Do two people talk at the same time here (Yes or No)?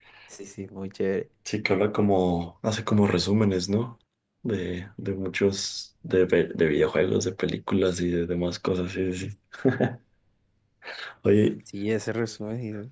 No